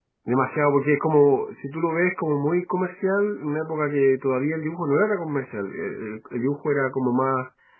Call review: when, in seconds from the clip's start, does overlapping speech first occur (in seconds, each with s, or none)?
none